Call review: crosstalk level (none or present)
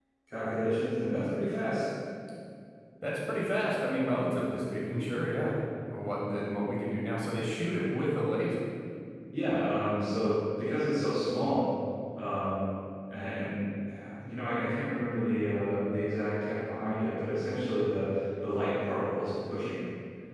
none